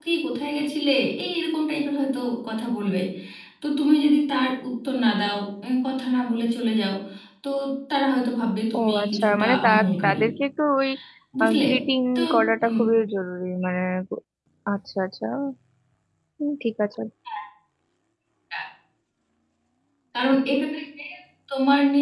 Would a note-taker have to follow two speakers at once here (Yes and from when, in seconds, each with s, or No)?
Yes, from 8.8 s